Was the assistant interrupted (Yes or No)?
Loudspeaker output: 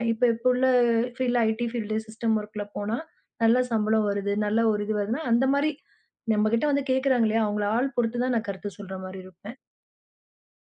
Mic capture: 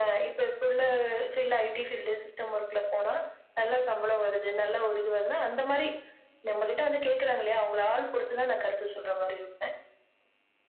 No